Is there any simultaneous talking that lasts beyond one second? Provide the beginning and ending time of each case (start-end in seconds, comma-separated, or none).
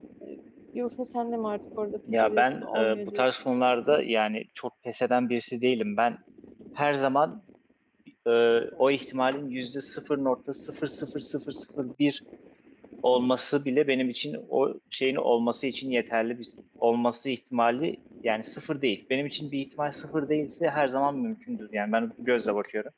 2.1-3.3